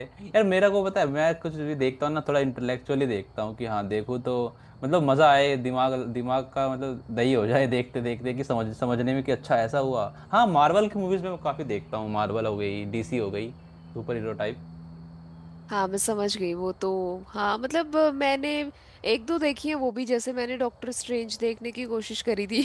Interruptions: none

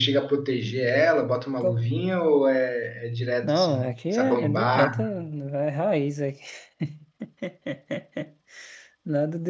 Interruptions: present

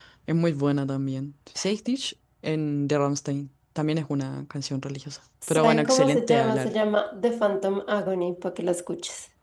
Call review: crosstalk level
present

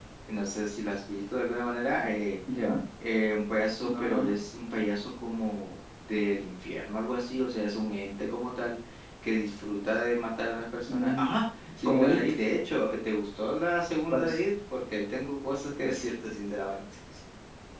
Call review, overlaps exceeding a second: none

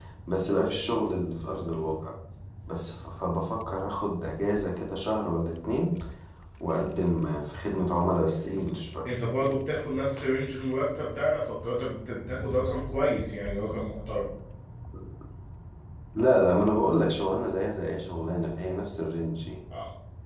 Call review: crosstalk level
none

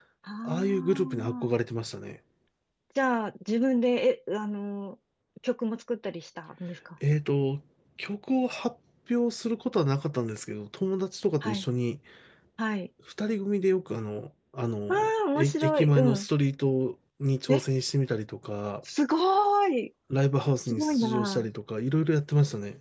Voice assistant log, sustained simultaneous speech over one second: present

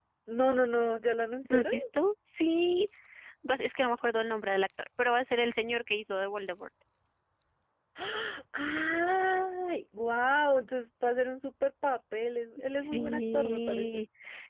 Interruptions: present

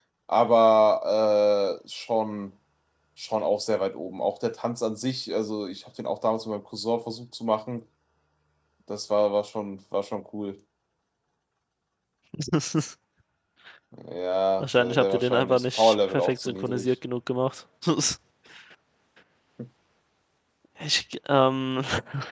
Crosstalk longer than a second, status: present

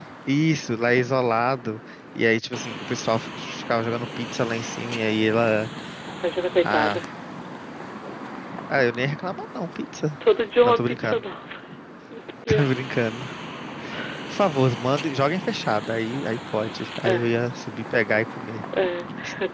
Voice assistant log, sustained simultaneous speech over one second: none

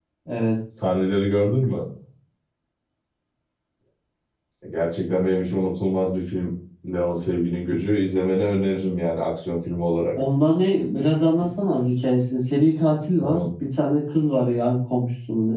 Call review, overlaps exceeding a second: none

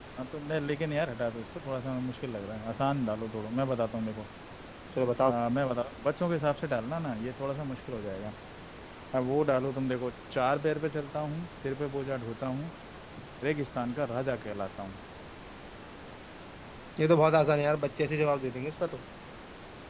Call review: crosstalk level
none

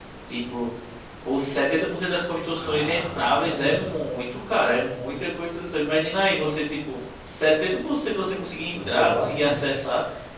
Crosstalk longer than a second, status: present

